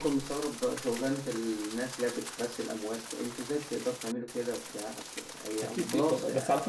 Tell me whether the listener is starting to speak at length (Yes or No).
Yes